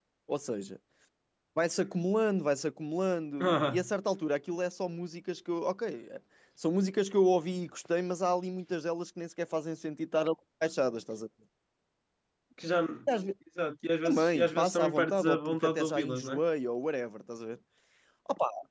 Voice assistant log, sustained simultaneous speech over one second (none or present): present